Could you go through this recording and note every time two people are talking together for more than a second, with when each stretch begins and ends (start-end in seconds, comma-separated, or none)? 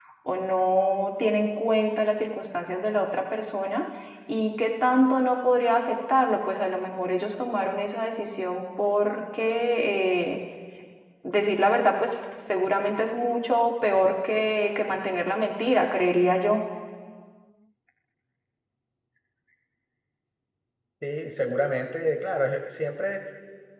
none